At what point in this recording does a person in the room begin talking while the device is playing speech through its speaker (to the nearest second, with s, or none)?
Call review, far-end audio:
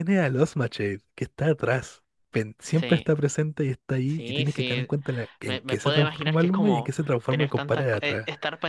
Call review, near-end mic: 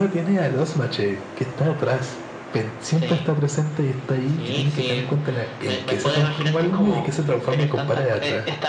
none